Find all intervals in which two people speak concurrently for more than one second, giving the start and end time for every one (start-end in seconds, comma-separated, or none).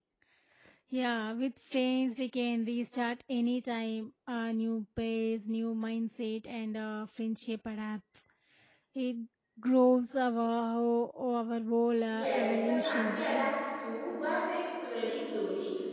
12.1-13.5